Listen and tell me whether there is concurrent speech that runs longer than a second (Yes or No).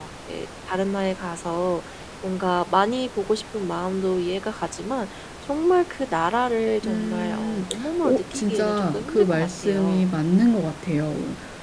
Yes